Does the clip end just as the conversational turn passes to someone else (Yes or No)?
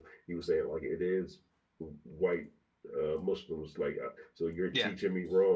No